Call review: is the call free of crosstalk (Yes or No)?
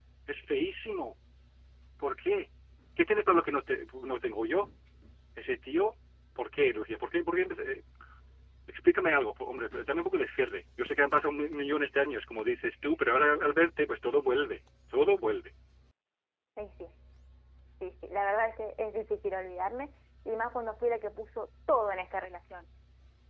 Yes